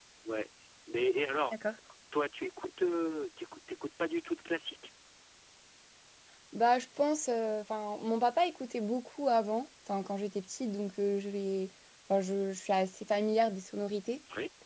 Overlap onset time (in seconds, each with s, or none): none